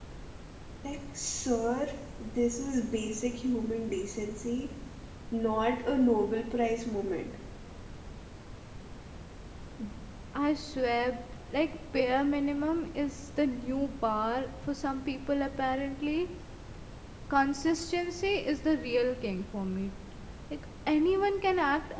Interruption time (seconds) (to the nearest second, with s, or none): none